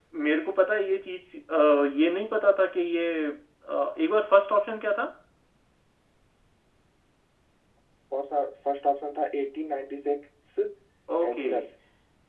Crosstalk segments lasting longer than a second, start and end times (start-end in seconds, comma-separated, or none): none